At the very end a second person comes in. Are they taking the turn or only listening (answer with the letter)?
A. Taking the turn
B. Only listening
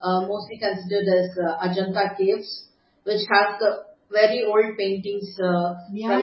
A